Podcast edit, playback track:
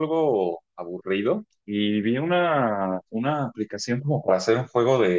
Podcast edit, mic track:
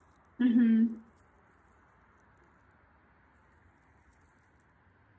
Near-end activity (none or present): present